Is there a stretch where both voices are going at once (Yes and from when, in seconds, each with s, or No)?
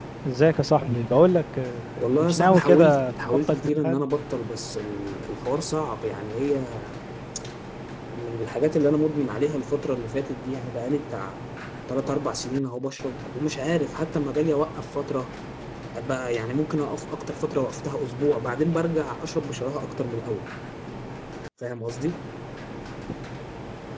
Yes, from 2.0 s